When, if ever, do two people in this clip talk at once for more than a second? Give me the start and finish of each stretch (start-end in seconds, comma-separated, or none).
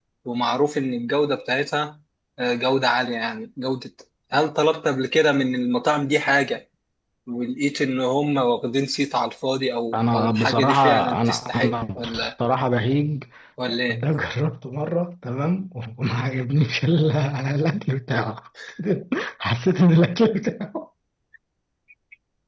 9.9-12.3